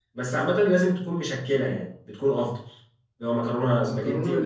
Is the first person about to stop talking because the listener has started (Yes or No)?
Yes